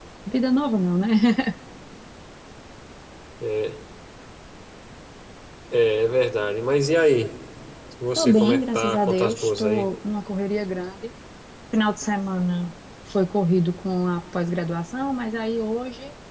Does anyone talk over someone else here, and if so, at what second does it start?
8.2 s

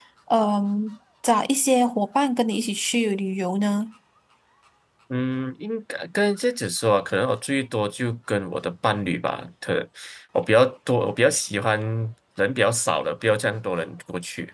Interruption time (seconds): none

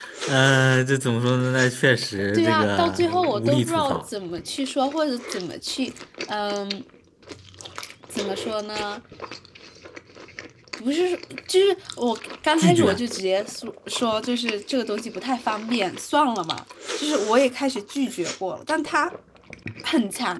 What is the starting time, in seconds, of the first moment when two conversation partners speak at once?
2.3 s

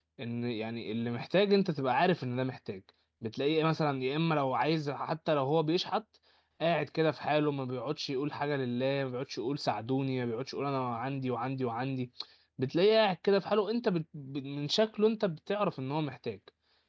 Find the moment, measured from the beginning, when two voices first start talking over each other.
none

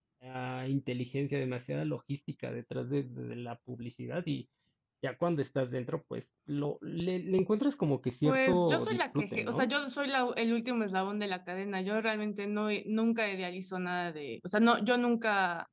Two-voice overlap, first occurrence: 8.2 s

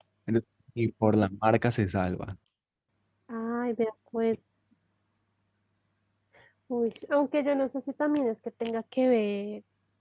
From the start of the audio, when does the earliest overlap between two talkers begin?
none

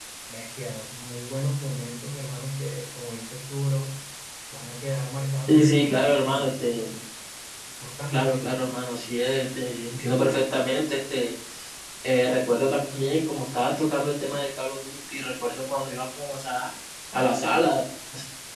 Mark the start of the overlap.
5.5 s

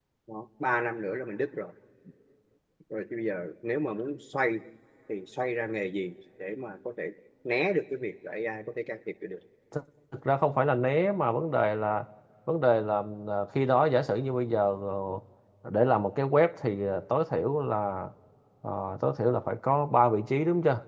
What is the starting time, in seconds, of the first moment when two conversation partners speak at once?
none

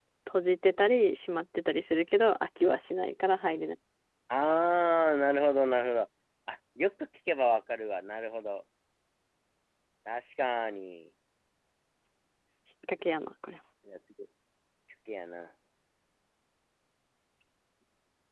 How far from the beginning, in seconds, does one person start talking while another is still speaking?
none

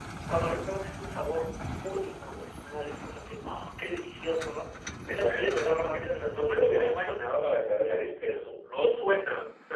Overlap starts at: 5.1 s

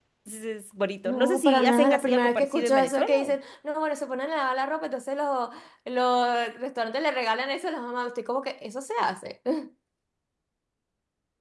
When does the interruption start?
1.0 s

